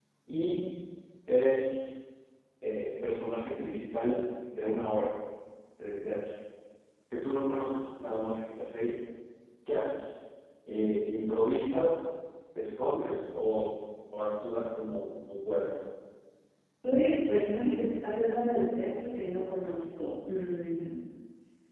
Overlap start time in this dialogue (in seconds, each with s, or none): none